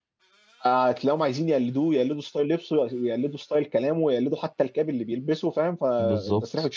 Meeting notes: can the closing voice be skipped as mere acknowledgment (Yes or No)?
Yes